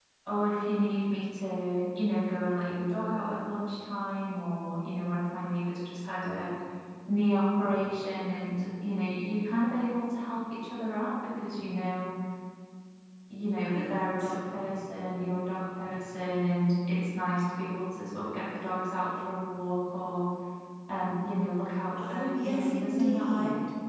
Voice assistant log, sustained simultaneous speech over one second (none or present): present